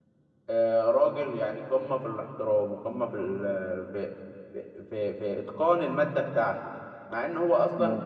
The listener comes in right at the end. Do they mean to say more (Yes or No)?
No